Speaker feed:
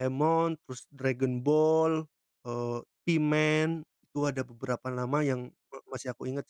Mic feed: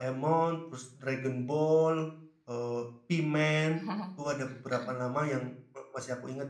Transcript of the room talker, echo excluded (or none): Oh. Heeh.